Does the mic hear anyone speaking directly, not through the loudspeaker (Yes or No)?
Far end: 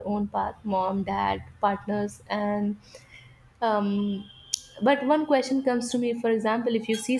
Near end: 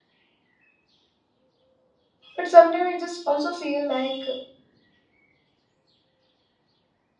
Yes